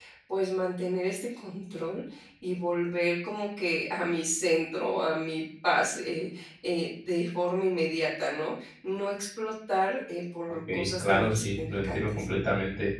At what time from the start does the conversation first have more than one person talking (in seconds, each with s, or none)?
10.7 s